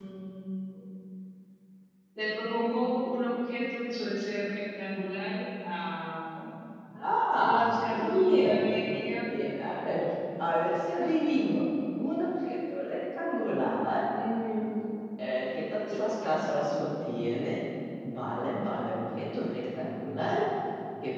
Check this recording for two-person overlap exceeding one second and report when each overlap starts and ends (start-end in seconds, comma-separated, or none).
7.4-9.3